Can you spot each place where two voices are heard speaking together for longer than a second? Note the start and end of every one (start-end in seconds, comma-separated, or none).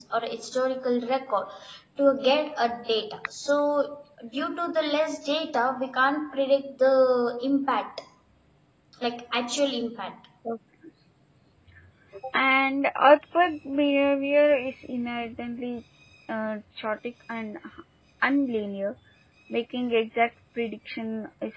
none